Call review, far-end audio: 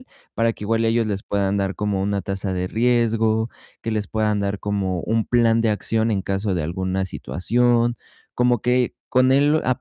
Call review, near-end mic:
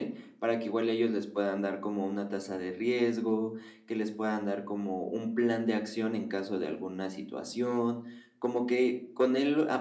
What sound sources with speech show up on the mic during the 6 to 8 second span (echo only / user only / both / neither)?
echo only